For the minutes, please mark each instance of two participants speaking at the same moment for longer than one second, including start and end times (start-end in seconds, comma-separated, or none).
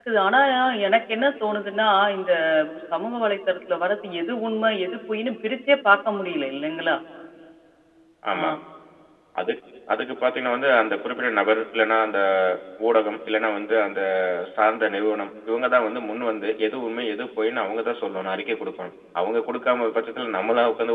none